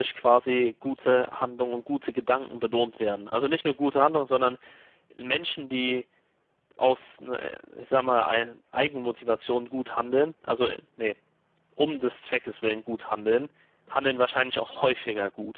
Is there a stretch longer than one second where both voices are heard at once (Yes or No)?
No